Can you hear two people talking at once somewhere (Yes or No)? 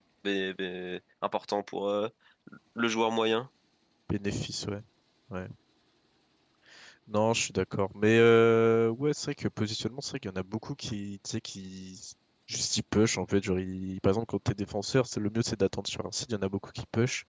No